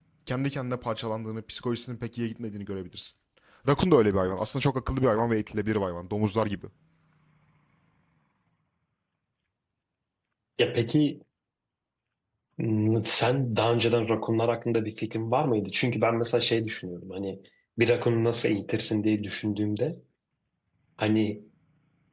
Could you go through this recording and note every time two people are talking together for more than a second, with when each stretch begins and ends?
none

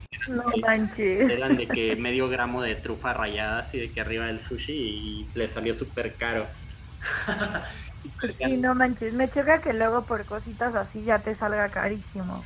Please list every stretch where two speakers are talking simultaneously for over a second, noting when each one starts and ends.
none

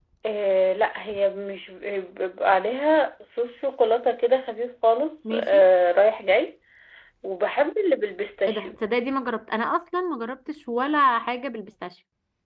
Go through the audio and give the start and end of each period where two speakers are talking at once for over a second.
none

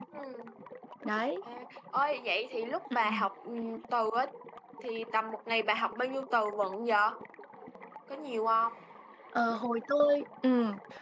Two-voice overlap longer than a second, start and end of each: none

